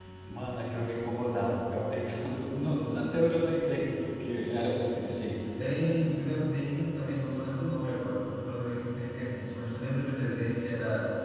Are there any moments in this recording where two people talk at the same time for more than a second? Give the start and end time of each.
none

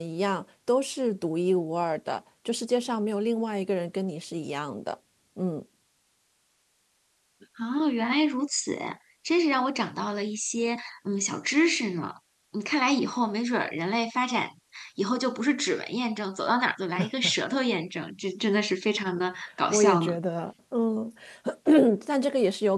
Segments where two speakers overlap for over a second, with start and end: none

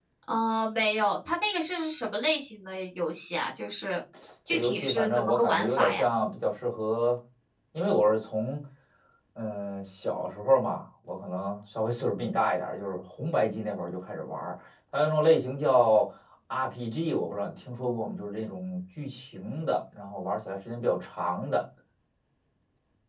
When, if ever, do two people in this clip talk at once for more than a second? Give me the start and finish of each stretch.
4.5-6.1

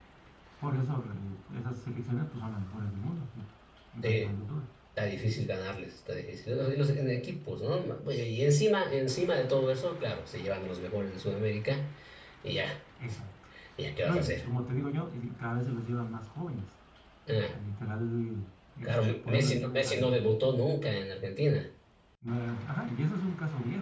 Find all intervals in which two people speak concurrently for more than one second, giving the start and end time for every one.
18.8-20.1

